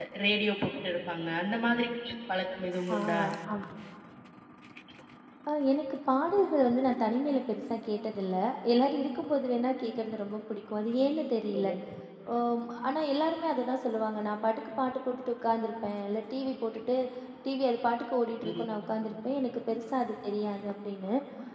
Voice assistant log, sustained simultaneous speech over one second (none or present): none